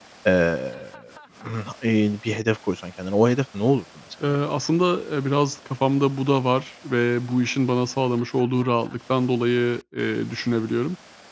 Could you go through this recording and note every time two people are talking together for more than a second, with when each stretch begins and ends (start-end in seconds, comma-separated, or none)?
none